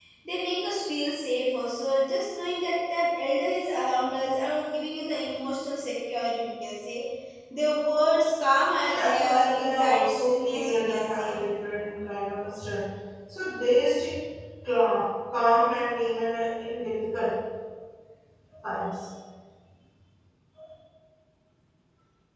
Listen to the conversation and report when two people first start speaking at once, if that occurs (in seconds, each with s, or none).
8.9 s